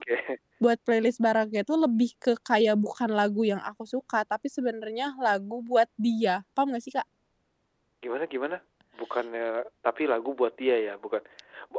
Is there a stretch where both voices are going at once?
No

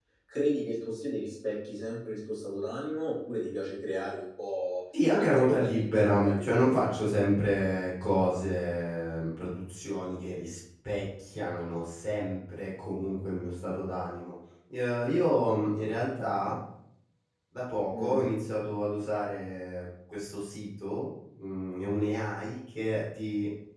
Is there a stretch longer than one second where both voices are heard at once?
Yes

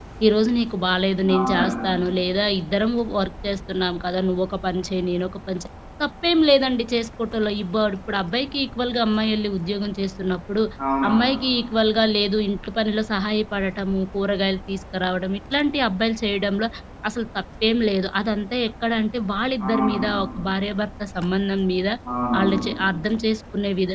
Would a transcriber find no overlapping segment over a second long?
Yes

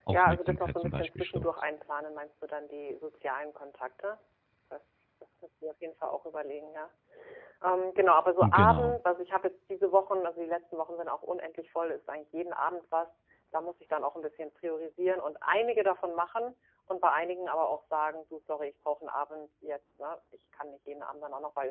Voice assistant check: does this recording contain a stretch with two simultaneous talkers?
Yes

